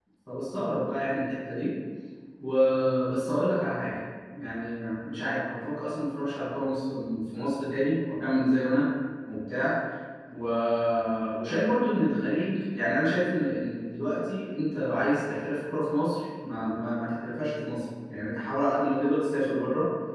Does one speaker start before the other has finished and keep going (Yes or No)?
No